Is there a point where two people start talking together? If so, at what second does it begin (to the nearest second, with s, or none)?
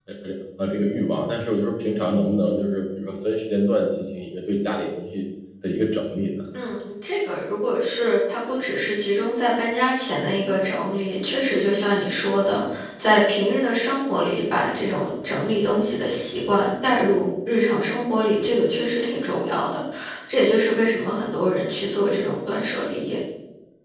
none